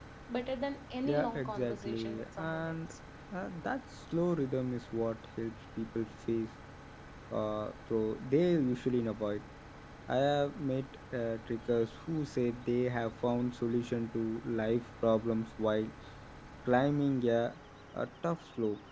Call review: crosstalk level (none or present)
present